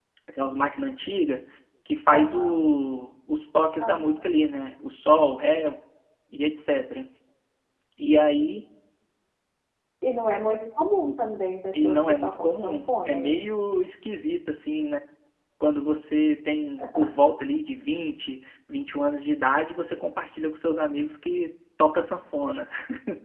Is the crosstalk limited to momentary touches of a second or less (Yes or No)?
No